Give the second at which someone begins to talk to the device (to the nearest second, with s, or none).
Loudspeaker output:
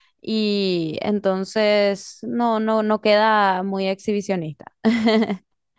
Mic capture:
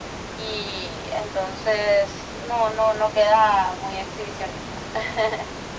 none